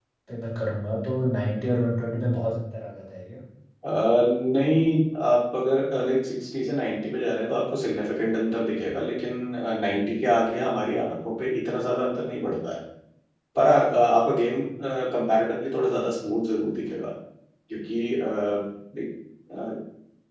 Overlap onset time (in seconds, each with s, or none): none